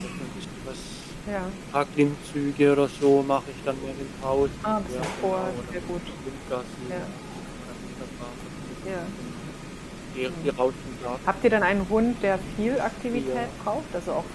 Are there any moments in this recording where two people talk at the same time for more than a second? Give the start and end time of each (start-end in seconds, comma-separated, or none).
4.6-6.0